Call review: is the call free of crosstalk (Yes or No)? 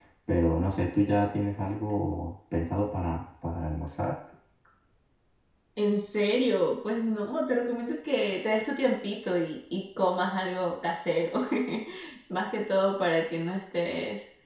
Yes